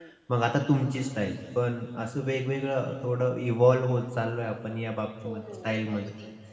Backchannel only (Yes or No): No